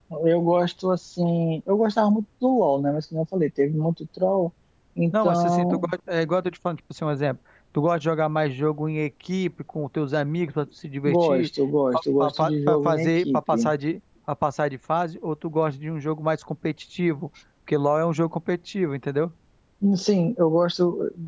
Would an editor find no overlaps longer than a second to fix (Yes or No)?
No